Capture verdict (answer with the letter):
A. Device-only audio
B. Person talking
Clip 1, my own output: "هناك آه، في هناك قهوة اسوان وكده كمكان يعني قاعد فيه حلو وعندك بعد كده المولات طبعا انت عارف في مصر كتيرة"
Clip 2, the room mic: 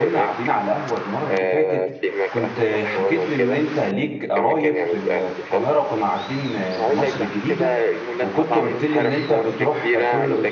B